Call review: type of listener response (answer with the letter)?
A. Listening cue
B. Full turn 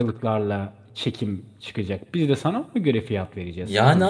B